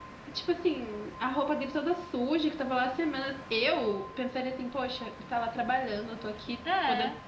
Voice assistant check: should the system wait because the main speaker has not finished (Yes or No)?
Yes